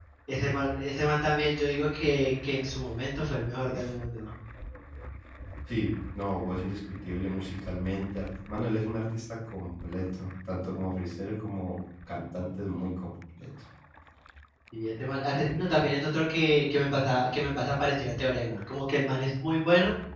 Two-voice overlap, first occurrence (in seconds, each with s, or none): none